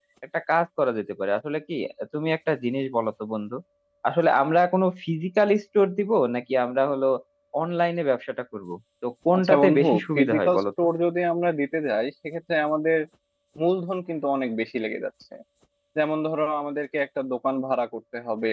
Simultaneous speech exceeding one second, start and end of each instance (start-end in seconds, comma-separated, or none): 9.4-10.6